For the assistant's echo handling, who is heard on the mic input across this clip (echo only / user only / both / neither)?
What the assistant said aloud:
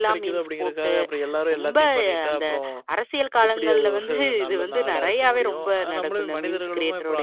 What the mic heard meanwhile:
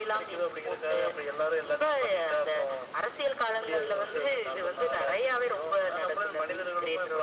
echo only